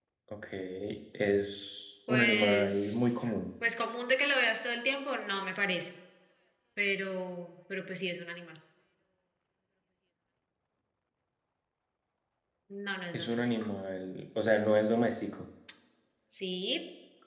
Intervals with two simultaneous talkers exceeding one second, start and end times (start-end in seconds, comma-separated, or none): 2.1-3.3